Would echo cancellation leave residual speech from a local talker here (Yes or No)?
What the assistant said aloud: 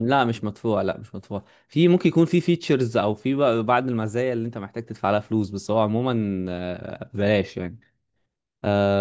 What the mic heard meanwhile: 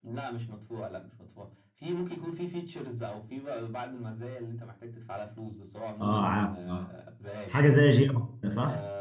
Yes